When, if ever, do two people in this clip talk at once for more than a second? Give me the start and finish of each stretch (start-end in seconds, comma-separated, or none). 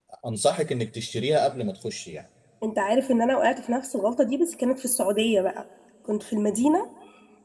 none